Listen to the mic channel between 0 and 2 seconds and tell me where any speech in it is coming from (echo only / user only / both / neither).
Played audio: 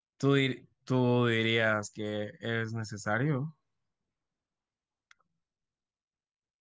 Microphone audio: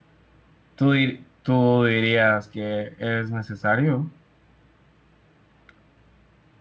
echo only